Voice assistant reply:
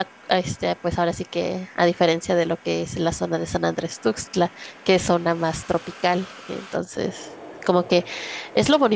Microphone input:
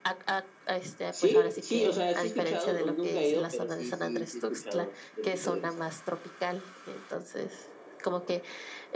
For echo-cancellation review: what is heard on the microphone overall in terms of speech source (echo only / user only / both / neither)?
both